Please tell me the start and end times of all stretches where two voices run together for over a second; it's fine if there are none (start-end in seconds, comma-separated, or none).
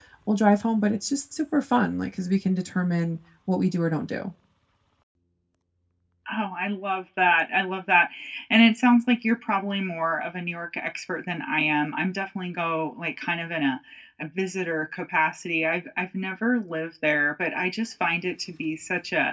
none